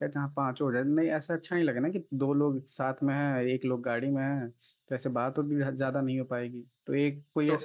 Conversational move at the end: taking over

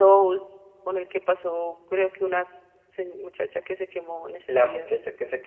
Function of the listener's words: taking over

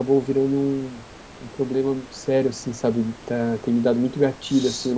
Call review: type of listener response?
listening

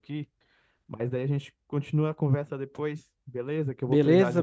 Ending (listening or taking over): taking over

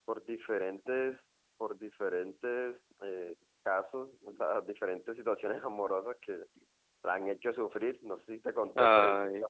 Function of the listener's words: listening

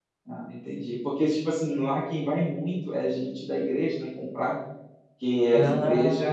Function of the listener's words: listening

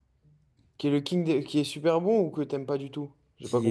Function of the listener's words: taking over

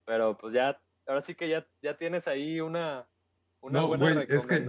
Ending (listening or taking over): taking over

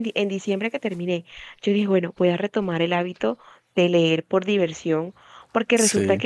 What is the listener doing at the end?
listening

